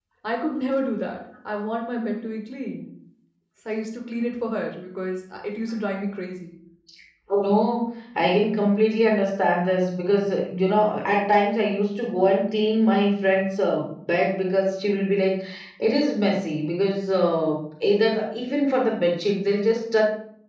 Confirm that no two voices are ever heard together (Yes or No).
Yes